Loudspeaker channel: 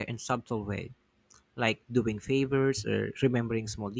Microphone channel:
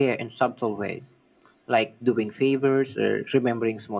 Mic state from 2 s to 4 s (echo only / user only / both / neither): echo only